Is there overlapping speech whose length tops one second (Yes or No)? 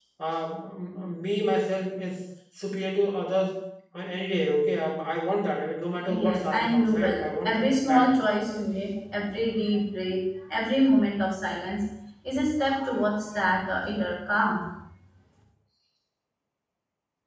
Yes